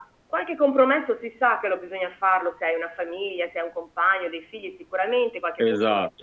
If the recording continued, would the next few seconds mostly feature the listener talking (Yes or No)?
No